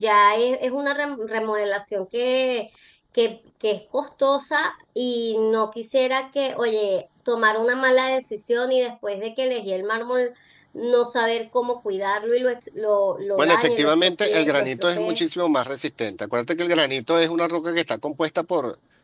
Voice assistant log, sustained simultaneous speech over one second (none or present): present